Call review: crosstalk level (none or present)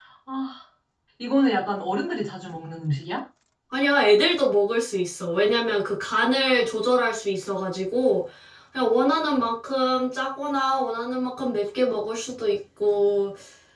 none